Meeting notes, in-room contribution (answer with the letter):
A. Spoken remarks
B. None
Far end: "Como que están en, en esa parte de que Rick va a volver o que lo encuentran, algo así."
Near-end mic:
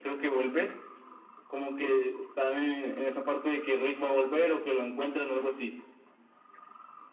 B